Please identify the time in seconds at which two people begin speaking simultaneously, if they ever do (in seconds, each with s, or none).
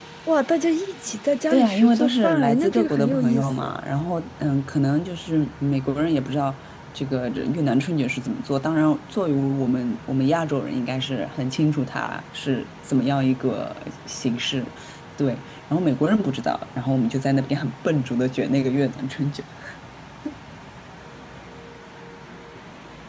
1.5 s